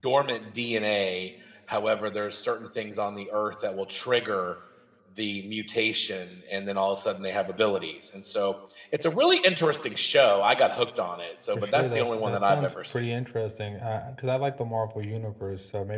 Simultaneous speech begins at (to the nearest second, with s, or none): 12 s